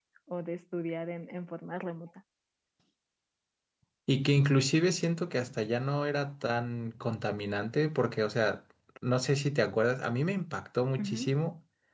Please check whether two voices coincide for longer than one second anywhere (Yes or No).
No